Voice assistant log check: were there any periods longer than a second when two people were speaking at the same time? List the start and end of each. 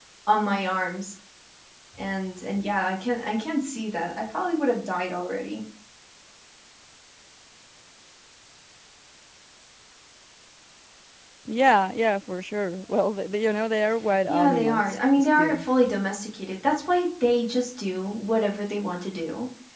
14.3-15.6

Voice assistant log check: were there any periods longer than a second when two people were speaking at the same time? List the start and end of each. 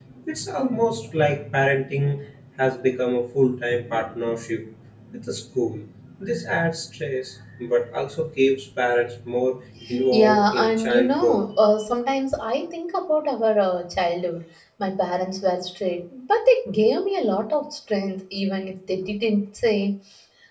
10.1-11.4

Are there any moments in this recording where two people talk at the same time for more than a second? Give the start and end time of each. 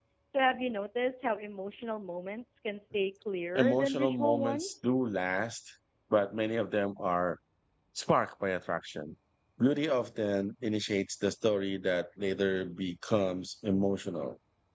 3.5-4.9

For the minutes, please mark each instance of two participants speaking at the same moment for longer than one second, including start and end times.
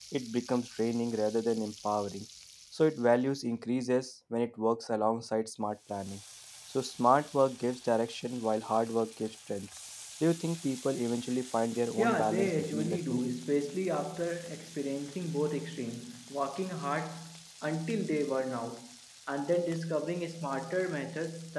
12.0-13.2

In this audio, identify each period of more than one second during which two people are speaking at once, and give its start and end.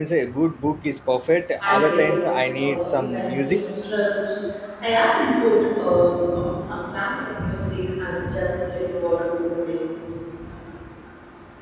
1.6-3.6

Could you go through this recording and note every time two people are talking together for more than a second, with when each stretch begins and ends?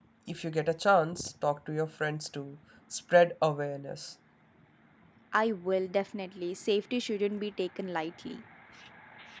none

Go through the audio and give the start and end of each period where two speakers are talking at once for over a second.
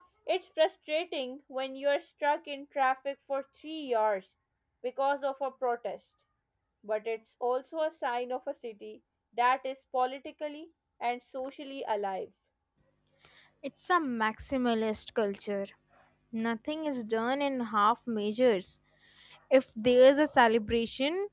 none

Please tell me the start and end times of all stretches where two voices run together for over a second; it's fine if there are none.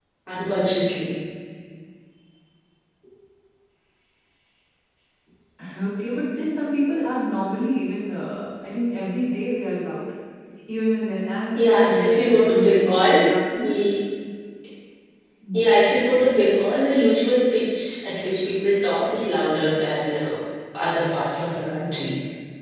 11.6-13.2

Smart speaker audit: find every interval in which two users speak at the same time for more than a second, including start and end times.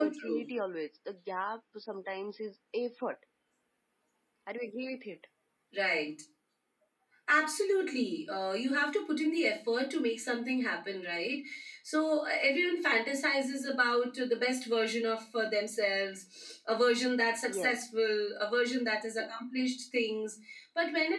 none

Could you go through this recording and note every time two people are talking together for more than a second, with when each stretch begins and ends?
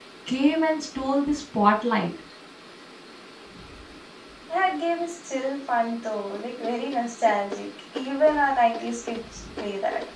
none

